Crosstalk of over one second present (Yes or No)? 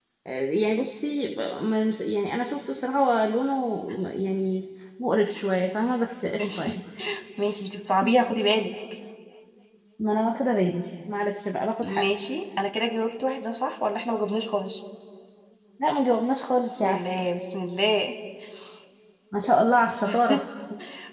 No